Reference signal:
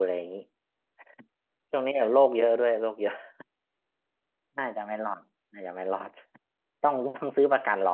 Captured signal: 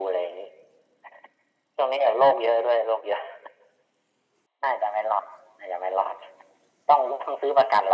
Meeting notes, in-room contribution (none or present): none